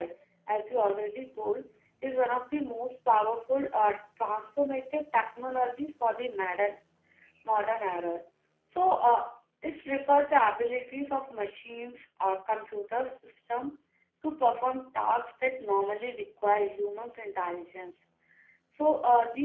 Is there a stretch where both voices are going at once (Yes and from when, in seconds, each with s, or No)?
No